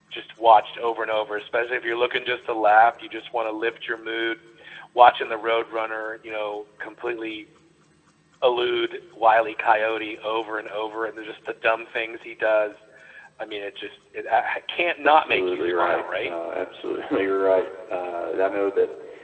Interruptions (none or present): present